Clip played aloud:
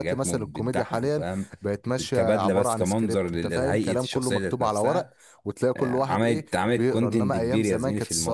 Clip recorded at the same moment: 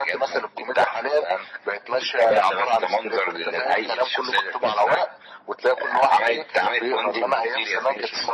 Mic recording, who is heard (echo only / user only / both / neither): echo only